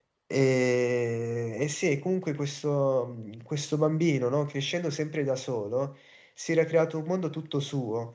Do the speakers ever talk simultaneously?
No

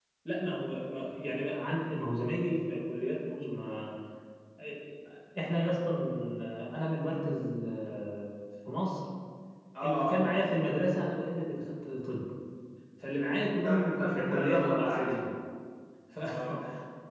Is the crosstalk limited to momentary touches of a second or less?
No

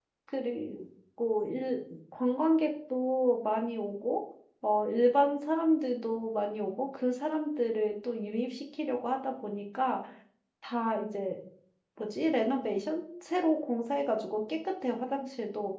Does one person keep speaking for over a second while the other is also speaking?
No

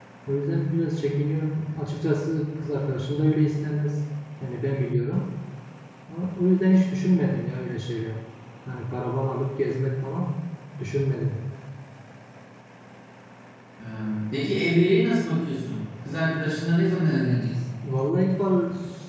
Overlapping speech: No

